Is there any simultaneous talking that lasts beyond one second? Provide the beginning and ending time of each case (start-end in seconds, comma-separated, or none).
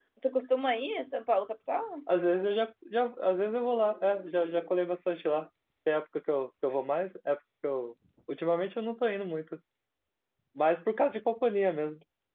none